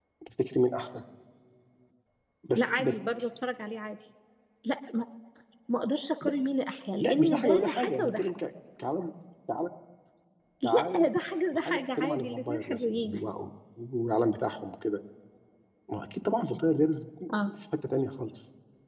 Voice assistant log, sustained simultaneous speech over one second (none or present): present